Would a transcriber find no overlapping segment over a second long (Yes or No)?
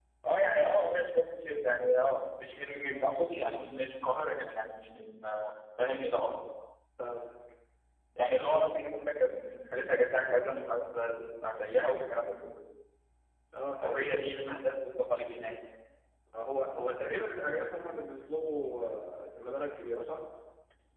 Yes